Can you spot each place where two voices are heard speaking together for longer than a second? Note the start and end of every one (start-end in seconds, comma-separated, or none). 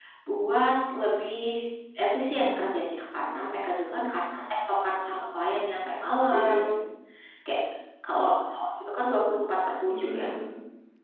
none